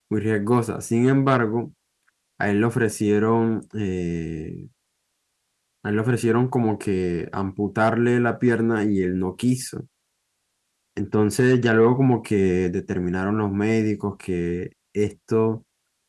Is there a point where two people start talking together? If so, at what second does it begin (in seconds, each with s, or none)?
none